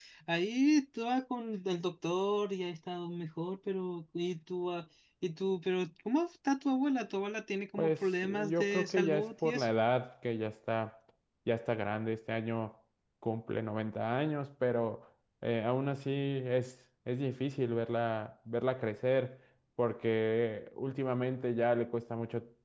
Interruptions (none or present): present